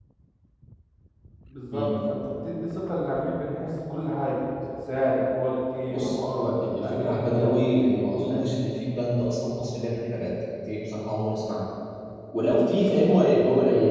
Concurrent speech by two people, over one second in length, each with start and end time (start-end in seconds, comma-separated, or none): 5.9-8.5